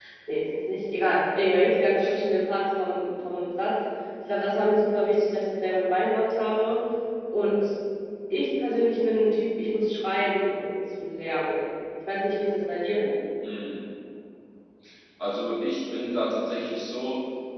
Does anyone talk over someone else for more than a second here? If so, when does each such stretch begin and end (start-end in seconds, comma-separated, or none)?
none